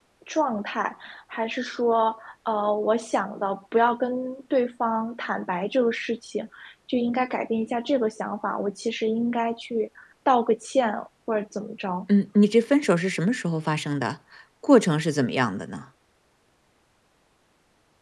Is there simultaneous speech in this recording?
No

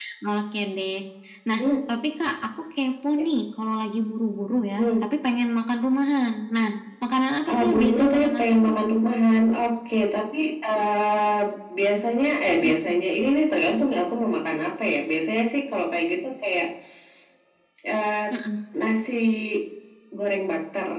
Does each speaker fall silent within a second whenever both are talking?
No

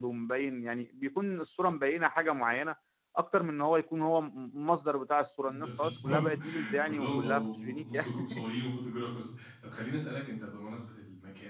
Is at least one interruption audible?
Yes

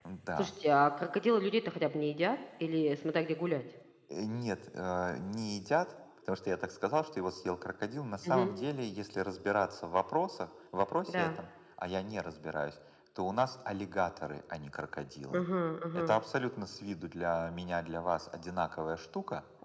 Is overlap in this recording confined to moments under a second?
Yes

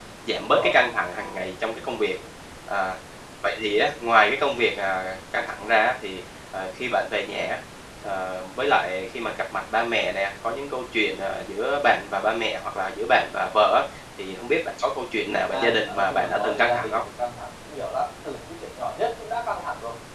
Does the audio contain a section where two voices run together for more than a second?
Yes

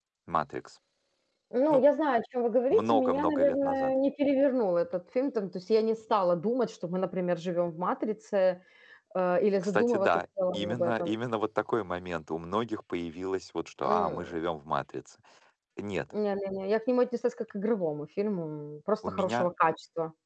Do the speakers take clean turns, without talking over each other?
No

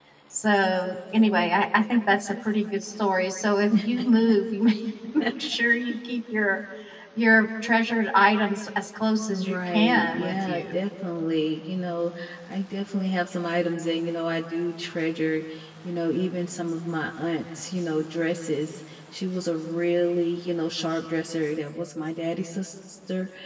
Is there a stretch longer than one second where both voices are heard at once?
Yes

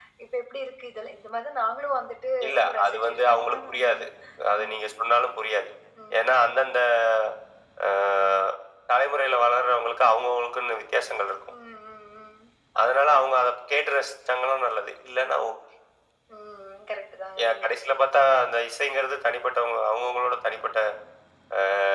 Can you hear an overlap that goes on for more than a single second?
Yes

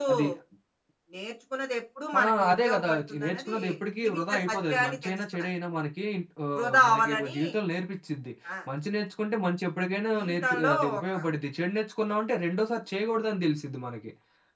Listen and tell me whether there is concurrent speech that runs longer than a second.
Yes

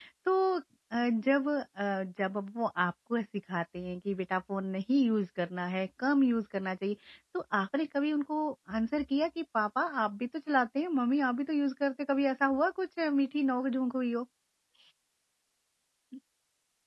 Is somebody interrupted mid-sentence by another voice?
No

